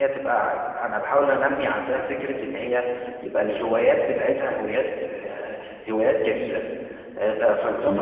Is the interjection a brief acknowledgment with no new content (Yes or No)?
Yes